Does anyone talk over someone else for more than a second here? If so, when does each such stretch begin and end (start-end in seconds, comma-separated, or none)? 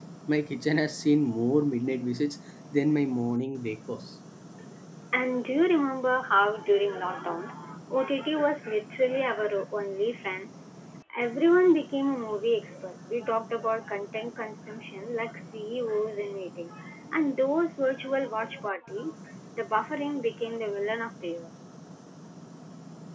none